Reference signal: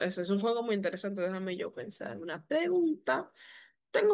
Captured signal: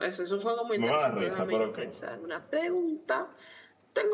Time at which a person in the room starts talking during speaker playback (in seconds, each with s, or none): 0.8 s